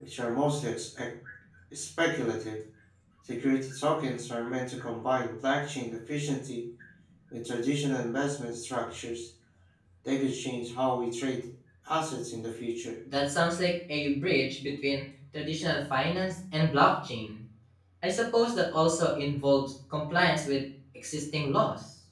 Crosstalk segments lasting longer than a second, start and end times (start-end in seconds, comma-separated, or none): none